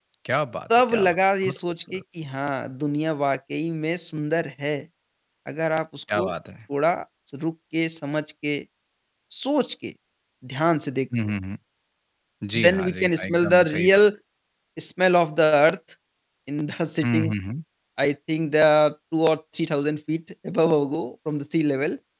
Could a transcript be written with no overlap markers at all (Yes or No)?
No